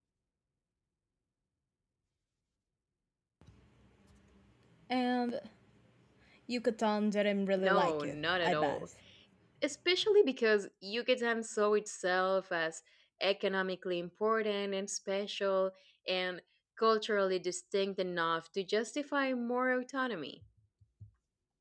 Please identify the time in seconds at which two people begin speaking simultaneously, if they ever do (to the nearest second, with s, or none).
8 s